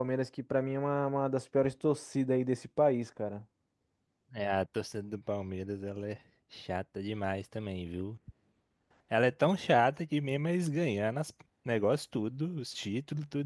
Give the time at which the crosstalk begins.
none

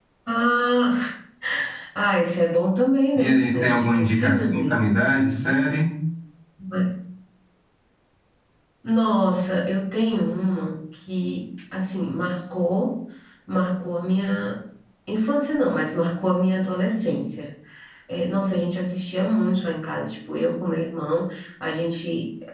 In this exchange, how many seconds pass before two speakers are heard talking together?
3.1 s

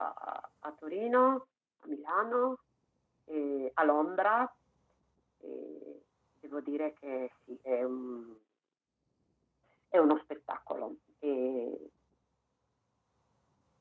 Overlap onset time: none

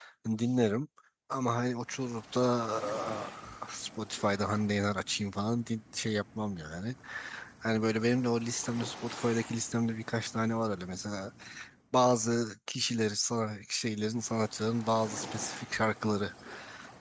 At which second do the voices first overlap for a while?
none

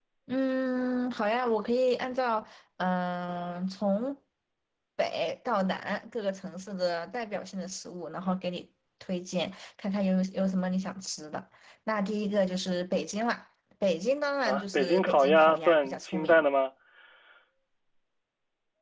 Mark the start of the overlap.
14.4 s

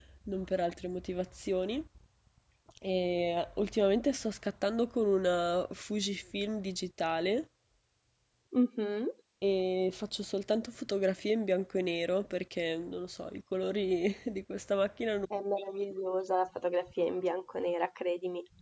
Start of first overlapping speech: none

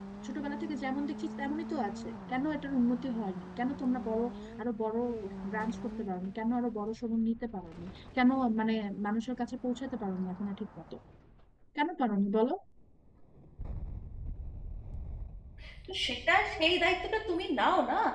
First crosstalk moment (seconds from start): none

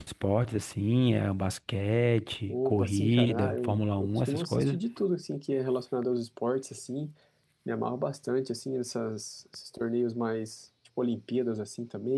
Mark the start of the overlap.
2.5 s

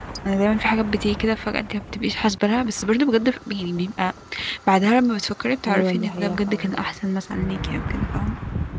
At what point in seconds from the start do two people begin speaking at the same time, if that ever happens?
5.6 s

